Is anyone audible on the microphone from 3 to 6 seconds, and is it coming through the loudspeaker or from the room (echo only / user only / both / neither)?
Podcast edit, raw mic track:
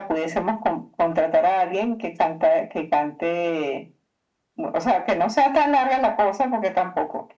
echo only